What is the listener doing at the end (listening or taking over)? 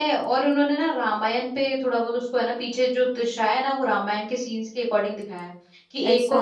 listening